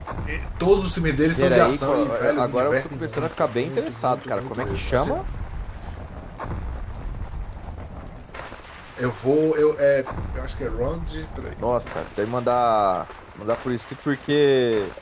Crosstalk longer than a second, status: present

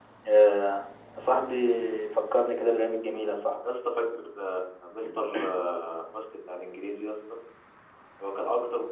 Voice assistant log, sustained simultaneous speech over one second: none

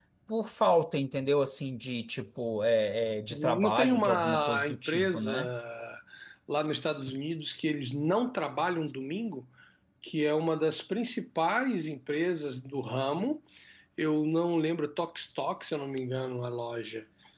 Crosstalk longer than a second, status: present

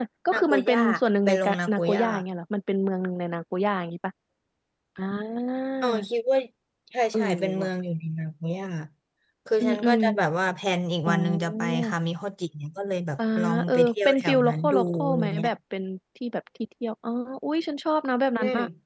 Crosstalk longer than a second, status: present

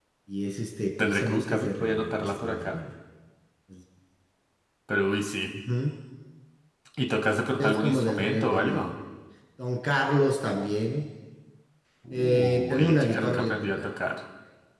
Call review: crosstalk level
present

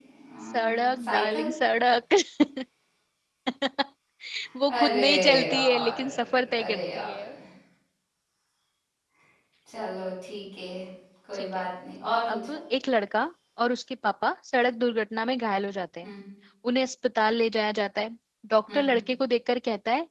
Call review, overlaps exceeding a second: present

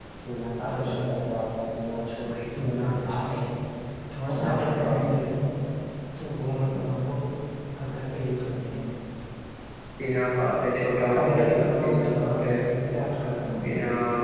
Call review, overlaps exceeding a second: present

